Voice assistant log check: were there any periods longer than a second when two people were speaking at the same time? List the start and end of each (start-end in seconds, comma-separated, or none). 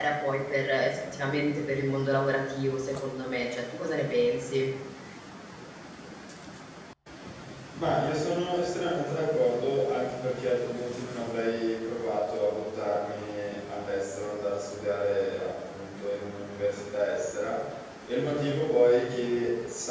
none